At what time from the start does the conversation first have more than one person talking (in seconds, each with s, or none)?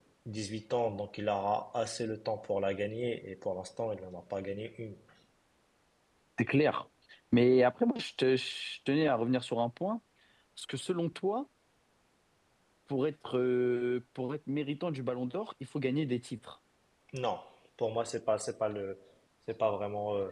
none